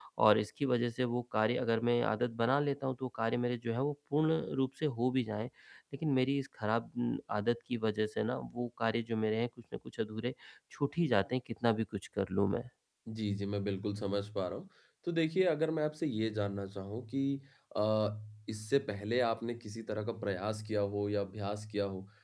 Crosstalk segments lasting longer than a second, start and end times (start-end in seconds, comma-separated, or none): none